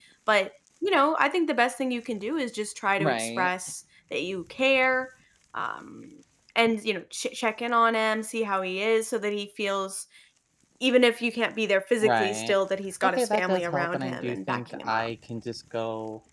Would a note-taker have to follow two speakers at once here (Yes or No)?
Yes